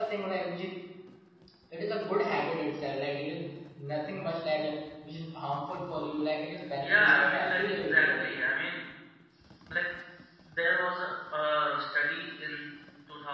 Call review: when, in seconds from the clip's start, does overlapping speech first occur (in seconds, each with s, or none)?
6.8 s